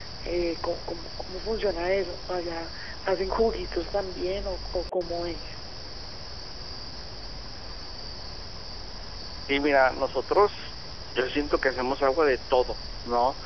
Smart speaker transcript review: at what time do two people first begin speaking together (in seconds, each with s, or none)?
none